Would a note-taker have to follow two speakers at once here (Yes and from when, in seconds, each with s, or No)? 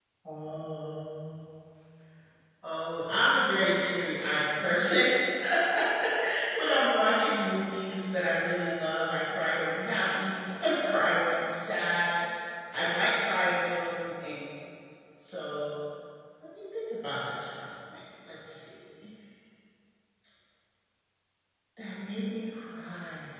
No